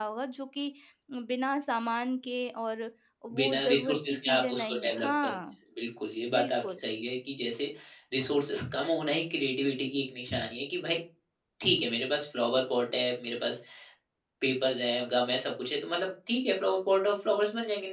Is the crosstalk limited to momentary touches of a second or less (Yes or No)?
No